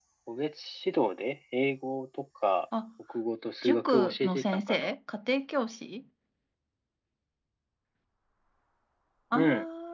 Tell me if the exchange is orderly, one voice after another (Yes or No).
No